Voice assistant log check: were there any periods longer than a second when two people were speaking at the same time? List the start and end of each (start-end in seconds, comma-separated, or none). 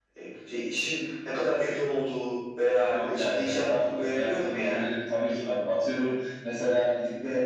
2.9-4.8